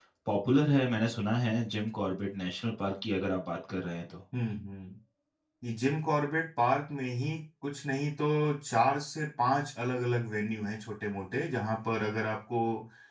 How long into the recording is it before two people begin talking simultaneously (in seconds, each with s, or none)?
none